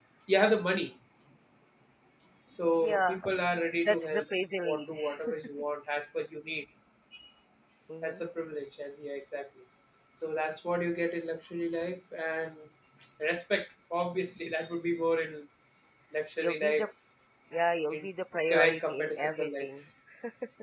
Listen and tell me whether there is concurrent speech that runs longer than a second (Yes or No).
Yes